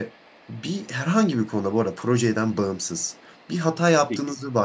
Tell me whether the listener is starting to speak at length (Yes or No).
No